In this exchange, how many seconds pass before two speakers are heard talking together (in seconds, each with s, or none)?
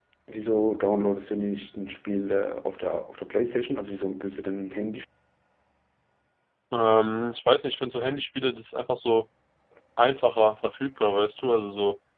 none